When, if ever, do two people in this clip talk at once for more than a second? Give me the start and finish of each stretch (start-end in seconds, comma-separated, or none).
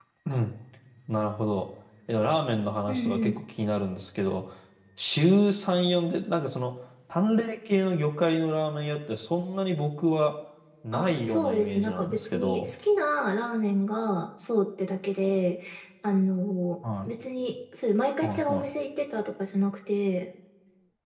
10.9-12.7